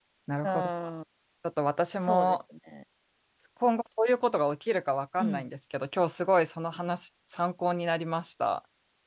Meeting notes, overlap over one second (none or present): none